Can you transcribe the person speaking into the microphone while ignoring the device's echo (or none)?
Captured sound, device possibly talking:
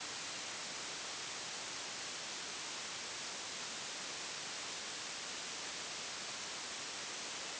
none